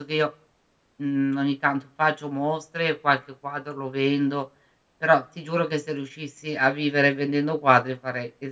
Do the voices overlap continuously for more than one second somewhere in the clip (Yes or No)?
No